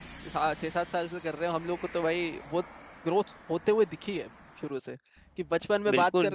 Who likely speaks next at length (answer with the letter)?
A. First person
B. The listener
A